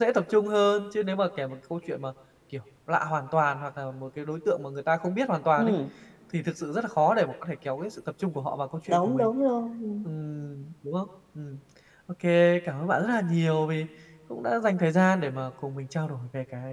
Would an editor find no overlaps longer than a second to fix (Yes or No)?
Yes